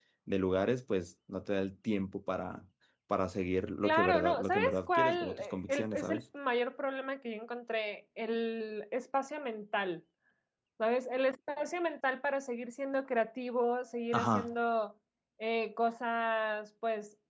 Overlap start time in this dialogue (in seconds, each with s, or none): 3.8 s